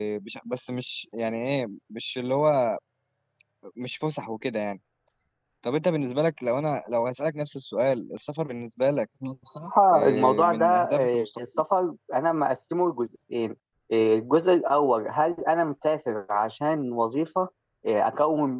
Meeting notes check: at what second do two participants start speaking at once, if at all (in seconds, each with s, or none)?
9.9 s